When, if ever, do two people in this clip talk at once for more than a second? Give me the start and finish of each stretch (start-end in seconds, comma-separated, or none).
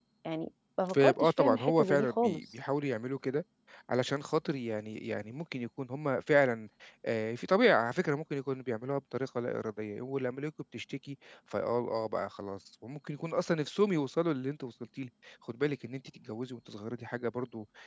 0.9-2.4